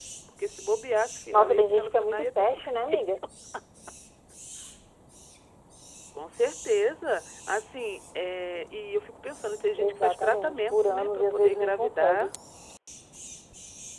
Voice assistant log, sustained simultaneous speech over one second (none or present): present